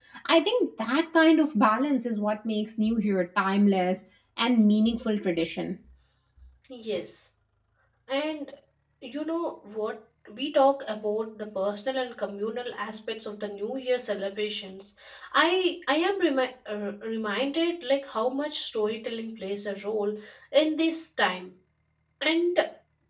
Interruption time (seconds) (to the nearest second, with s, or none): none